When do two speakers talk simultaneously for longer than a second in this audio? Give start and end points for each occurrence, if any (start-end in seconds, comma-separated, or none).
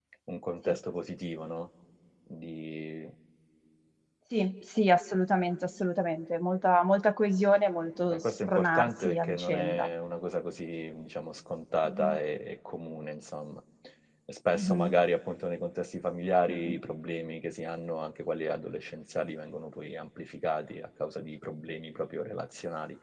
8.1-9.9